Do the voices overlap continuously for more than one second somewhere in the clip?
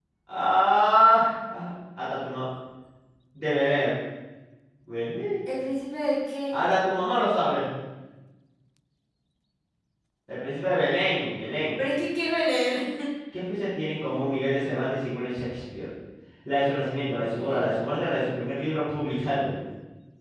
No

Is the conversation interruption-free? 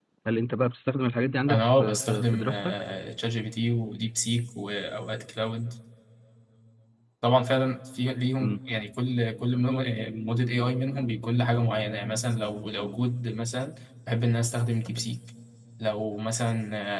No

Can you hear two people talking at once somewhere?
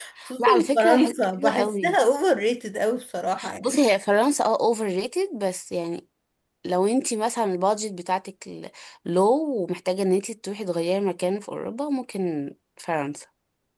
Yes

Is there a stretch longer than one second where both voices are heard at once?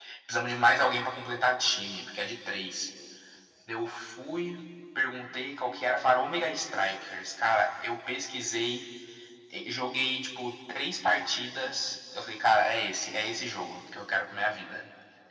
No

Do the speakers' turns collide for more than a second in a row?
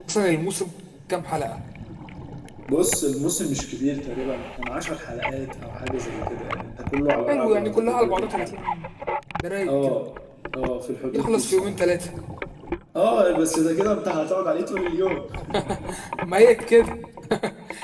Yes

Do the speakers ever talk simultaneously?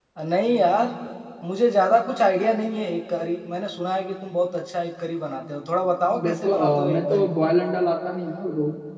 Yes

